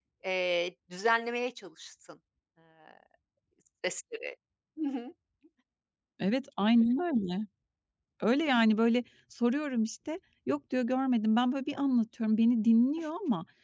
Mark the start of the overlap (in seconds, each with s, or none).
none